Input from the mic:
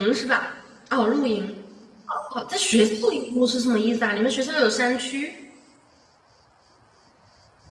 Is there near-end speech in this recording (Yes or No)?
Yes